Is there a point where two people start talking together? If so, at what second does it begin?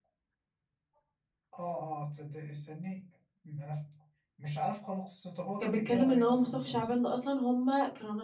5.6 s

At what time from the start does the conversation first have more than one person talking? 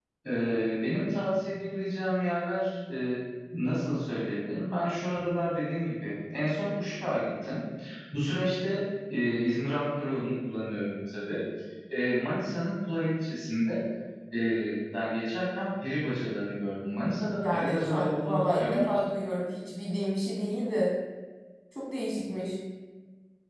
17.2 s

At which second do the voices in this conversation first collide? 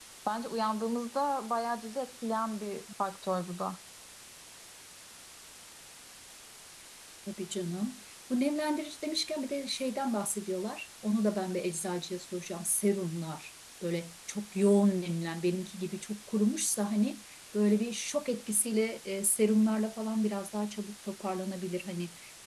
none

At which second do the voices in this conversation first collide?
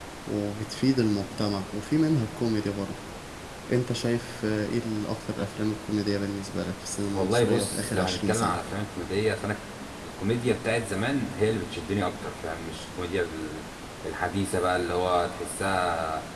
7.1 s

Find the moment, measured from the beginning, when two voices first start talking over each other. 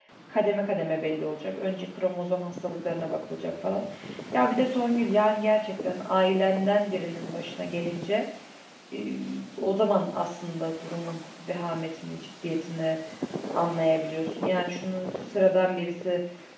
none

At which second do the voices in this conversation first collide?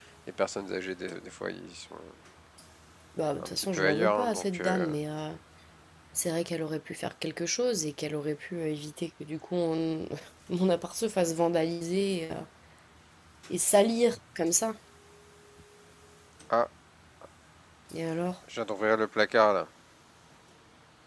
3.4 s

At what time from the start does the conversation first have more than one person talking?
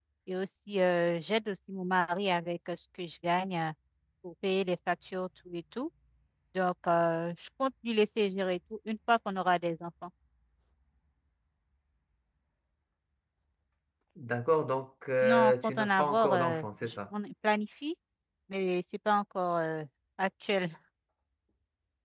15.2 s

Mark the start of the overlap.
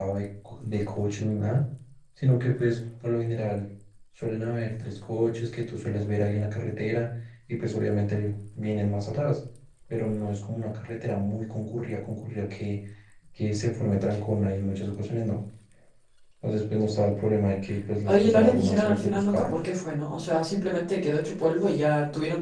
18.1 s

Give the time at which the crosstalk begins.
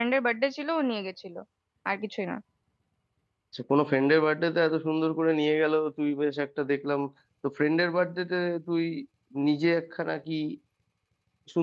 none

